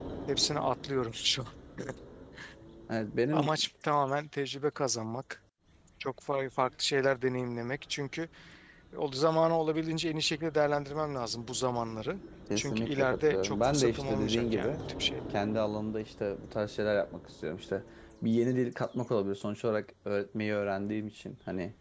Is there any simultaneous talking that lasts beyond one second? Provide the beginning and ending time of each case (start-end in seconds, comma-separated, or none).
12.6-14.8